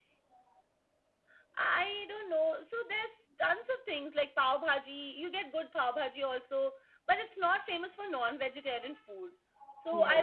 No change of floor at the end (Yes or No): Yes